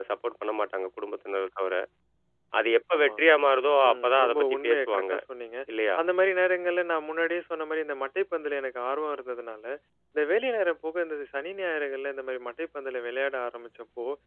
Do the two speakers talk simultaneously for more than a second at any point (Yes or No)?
Yes